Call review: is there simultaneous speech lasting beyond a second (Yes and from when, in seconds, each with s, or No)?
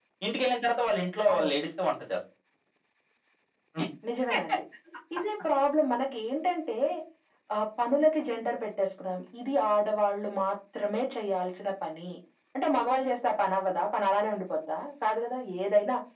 No